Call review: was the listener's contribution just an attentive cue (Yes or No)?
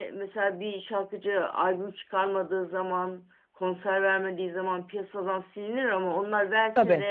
Yes